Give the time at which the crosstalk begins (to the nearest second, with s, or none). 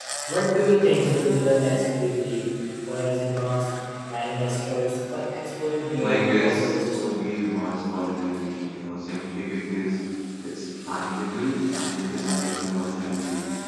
6 s